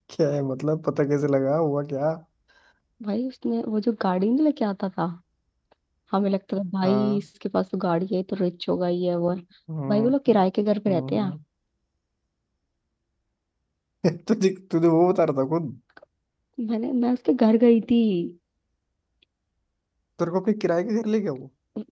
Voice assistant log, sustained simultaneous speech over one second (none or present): none